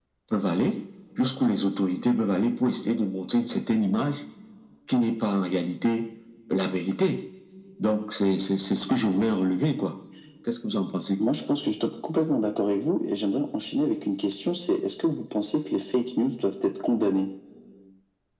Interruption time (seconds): none

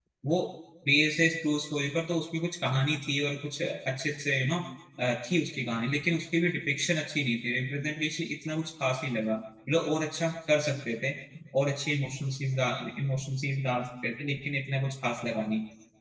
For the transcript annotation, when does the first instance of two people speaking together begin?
none

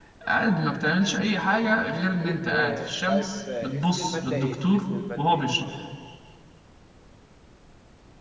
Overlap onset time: 2 s

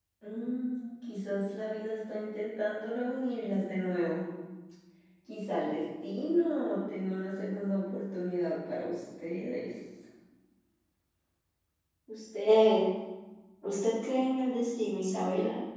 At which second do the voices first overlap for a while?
none

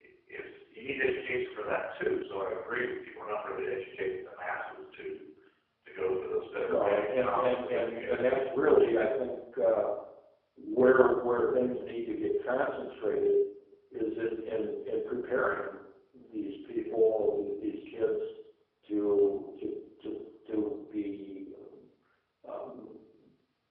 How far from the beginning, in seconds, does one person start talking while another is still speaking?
7 s

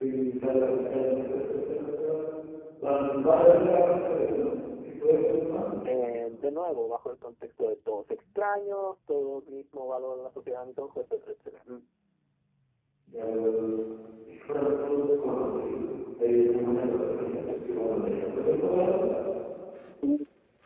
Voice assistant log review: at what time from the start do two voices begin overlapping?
none

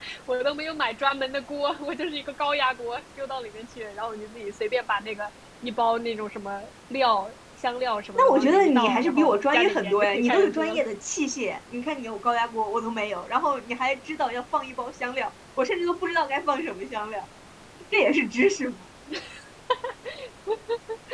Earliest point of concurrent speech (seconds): 8 s

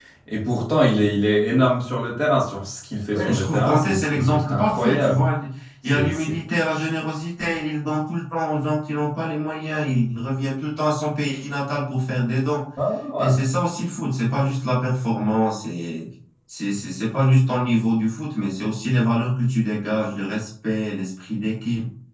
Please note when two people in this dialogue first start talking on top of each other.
3 s

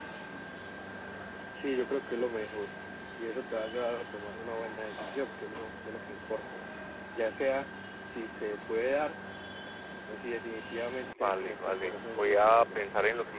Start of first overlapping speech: 11 s

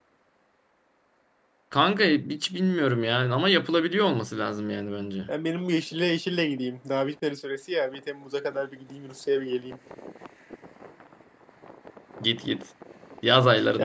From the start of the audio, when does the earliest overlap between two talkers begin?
none

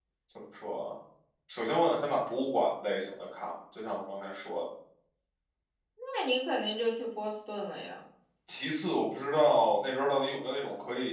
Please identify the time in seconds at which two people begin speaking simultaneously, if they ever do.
none

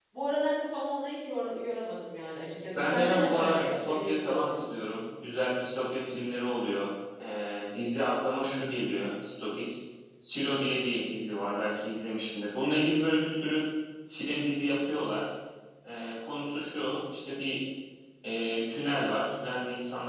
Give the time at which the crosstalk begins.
3 s

